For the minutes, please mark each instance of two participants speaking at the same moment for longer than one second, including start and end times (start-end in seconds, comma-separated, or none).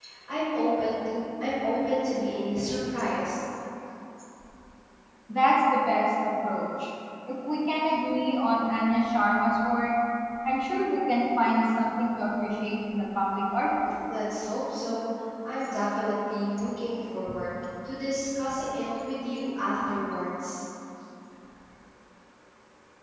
none